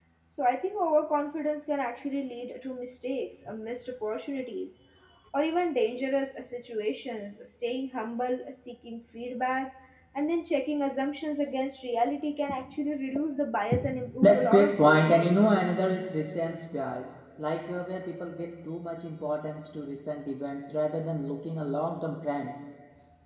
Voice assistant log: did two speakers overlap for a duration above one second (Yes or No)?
Yes